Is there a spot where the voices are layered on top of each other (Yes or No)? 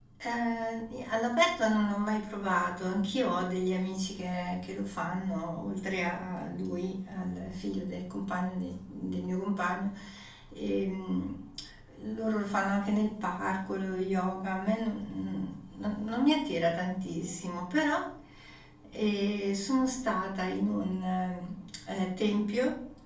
No